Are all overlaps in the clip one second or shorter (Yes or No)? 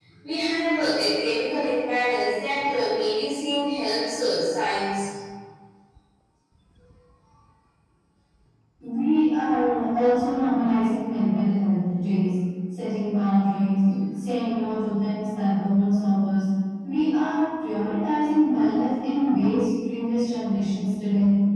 Yes